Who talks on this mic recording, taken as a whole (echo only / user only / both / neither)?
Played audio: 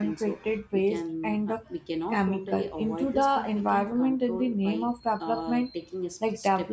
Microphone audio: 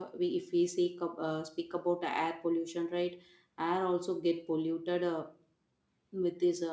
user only